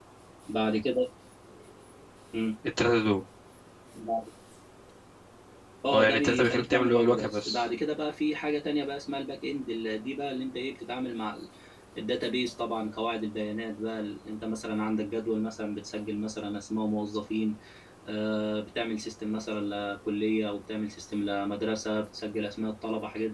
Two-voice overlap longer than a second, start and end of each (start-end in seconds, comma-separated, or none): 5.9-7.6